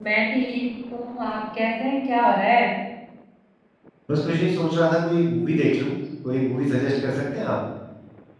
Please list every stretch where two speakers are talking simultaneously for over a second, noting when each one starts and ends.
none

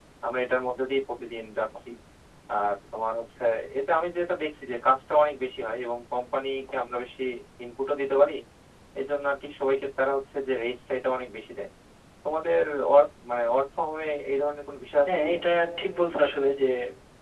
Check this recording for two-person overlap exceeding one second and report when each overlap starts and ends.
none

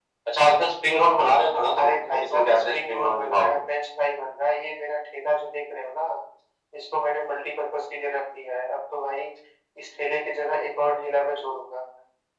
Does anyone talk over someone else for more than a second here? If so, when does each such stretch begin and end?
1.8-3.6

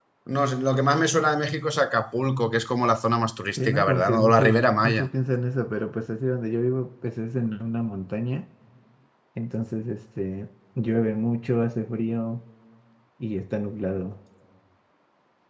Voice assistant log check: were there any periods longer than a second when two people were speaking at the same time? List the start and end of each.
3.6-5.0

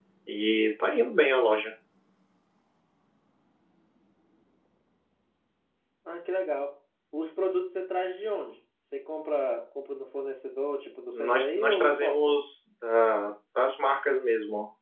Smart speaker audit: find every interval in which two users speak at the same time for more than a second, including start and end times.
11.1-12.4

